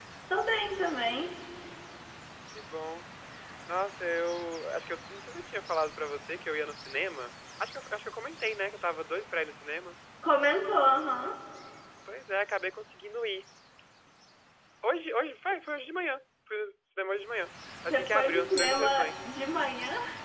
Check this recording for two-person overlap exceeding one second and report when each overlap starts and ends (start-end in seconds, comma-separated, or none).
17.9-19.2